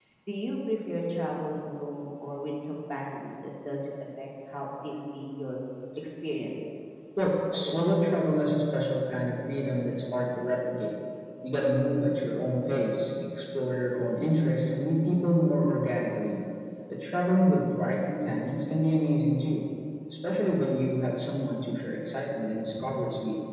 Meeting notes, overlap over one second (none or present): none